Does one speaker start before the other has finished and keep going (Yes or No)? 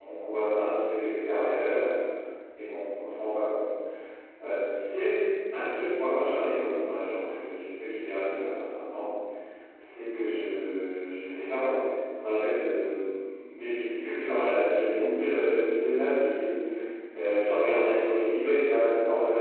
No